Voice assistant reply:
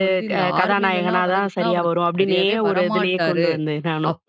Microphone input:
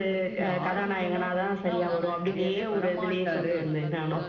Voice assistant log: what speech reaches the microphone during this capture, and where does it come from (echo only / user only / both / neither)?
both